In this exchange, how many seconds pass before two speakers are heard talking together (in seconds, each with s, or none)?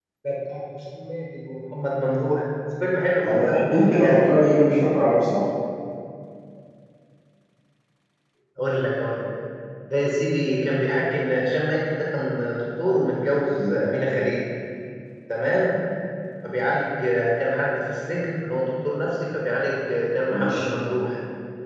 3.2 s